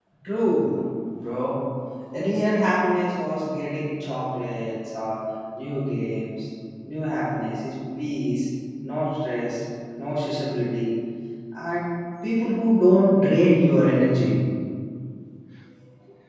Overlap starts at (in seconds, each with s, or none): none